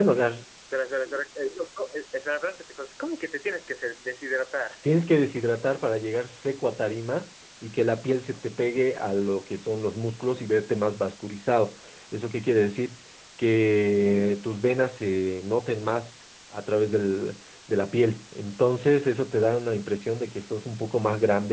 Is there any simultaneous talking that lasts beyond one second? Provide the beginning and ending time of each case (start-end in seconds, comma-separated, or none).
none